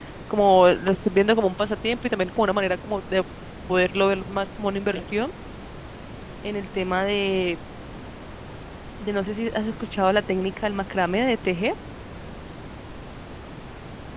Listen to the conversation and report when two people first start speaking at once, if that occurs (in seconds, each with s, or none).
none